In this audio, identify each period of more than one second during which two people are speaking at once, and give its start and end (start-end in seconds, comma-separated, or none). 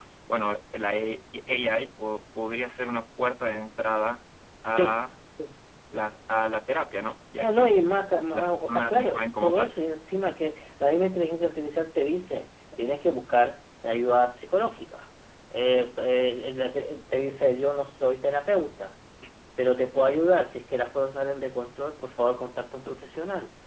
8.3-9.8